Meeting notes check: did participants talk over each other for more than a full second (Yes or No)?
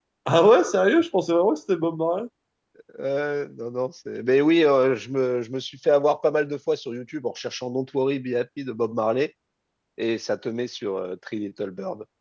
No